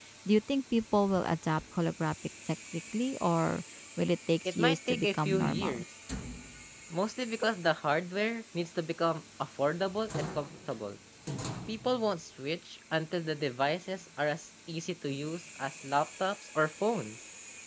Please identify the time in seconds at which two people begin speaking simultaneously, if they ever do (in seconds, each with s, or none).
4.4 s